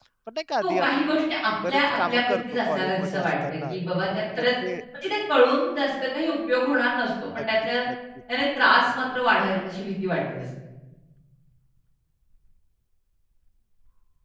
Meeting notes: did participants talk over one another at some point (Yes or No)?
Yes